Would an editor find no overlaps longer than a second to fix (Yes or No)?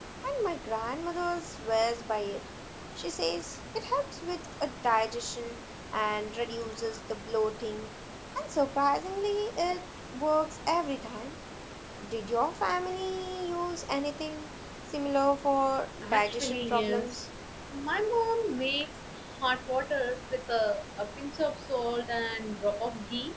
No